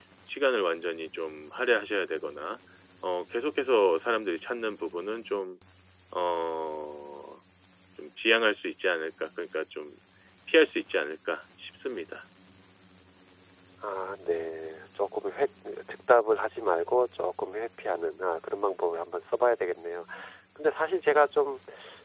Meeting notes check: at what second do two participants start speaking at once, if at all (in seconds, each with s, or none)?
none